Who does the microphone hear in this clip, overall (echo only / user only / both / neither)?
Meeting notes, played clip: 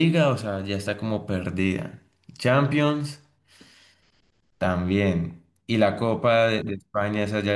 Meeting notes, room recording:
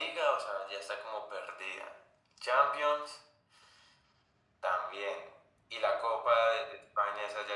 echo only